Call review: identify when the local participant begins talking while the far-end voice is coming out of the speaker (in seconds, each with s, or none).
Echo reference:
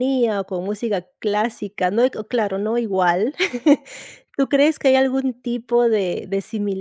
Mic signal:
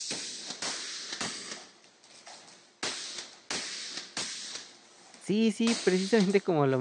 5.2 s